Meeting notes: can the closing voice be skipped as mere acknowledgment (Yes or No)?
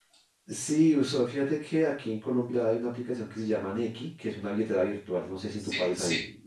No